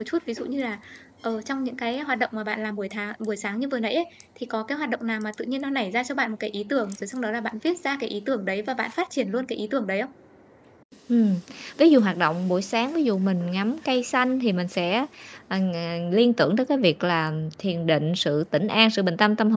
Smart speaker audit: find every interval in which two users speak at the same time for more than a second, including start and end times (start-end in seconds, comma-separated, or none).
none